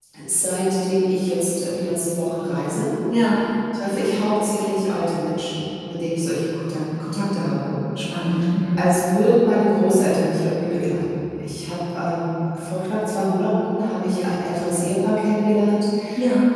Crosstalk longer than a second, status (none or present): none